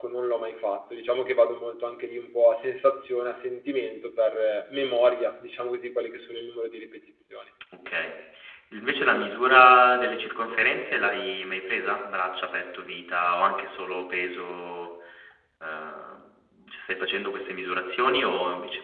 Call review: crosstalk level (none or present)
none